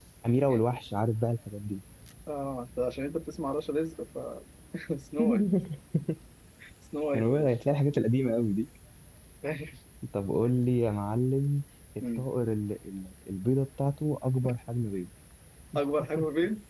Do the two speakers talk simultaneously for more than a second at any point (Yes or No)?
No